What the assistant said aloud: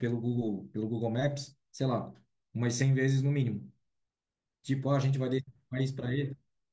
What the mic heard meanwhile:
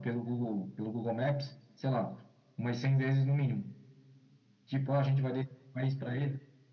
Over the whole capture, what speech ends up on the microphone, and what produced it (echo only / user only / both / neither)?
echo only